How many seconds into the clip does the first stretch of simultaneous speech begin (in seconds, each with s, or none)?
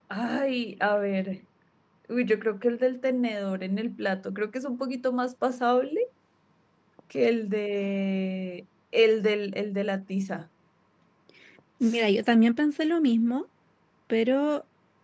none